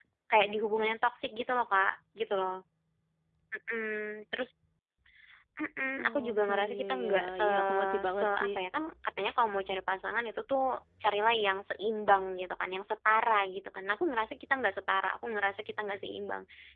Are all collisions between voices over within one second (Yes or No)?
No